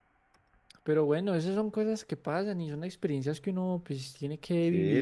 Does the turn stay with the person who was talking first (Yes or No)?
No